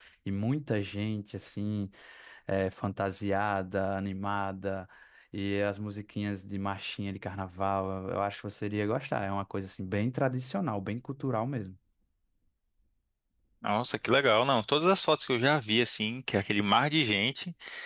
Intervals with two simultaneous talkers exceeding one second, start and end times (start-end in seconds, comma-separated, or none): none